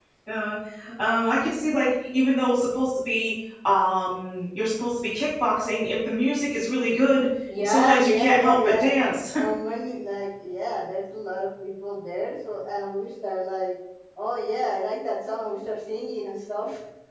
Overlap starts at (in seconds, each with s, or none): 7.5 s